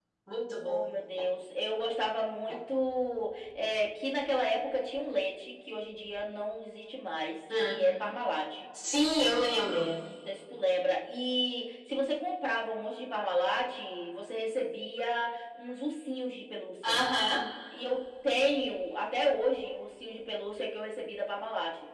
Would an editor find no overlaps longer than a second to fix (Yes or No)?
Yes